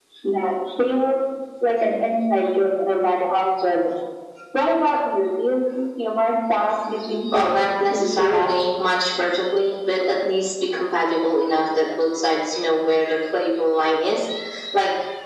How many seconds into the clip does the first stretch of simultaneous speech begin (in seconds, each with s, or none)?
7.3 s